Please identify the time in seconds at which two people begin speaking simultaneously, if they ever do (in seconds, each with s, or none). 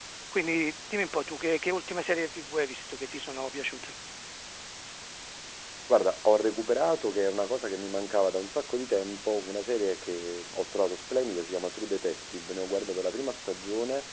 none